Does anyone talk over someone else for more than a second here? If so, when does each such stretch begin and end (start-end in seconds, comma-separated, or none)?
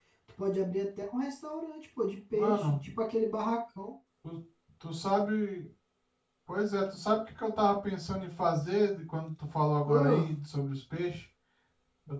none